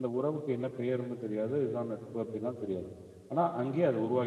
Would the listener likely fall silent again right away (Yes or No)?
No